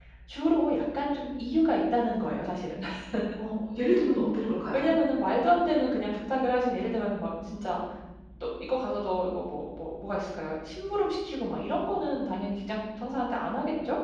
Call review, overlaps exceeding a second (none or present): none